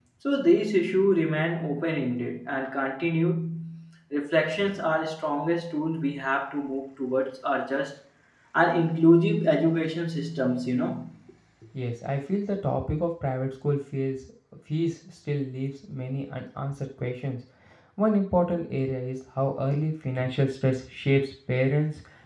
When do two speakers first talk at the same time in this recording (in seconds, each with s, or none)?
none